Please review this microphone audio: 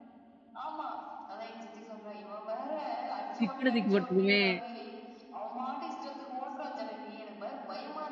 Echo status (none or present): present